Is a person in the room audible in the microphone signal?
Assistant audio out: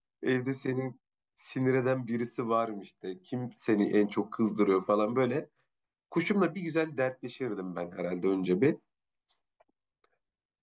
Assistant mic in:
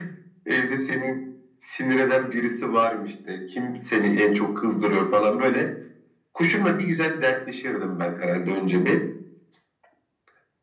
No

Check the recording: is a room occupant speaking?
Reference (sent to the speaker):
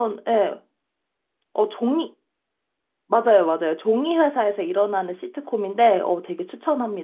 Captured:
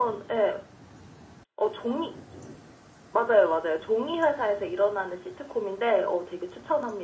No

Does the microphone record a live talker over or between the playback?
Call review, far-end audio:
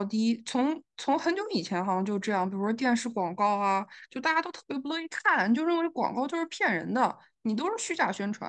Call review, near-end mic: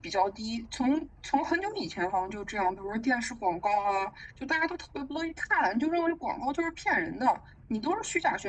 No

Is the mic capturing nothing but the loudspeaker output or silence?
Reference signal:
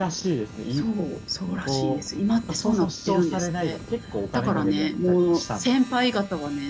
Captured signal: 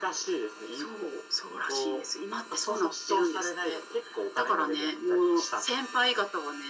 Yes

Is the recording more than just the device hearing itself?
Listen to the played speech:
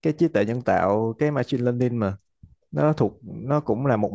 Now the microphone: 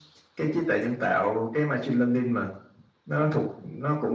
No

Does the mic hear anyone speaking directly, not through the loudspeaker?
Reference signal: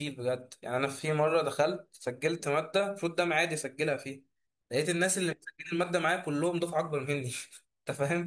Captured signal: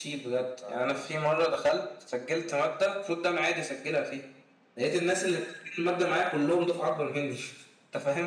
Yes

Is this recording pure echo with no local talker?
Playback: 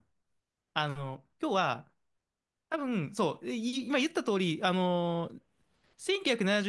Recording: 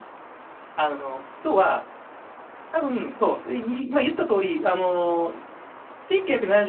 Yes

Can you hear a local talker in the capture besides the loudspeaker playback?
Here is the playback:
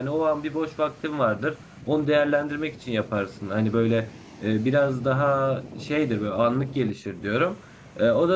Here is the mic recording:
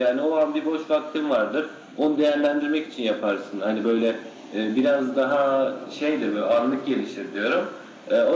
No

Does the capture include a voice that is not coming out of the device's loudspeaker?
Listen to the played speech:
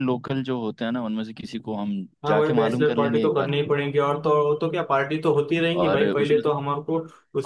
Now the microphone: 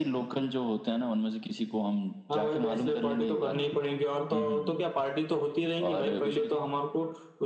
Yes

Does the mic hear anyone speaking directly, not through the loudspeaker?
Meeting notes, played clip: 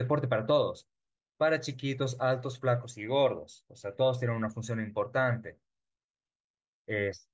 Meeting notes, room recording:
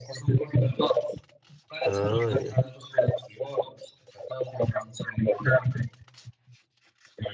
Yes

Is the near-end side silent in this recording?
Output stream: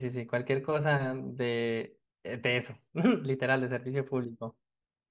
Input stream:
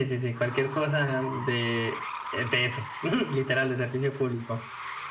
Yes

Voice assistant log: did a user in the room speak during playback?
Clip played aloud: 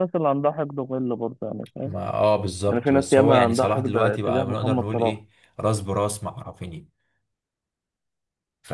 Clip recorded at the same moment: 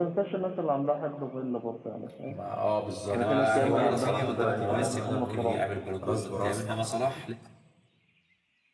Yes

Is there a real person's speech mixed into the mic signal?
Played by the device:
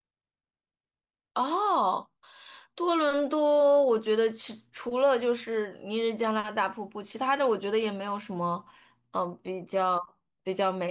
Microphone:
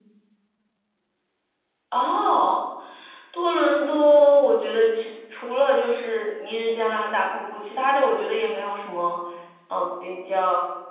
No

